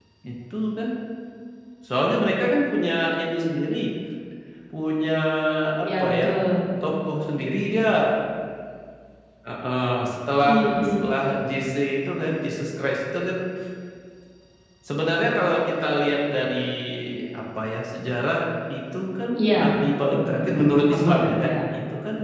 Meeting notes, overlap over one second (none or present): present